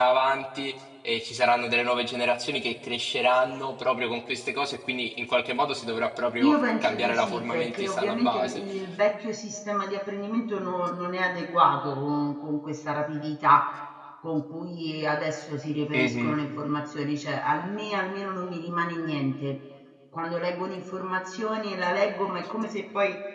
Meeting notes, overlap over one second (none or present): present